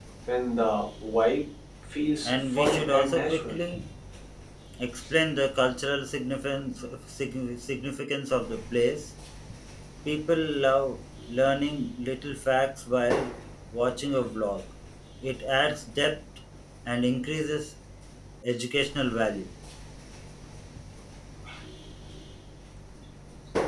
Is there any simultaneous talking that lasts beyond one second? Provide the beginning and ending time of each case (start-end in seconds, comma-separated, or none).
2.2-3.6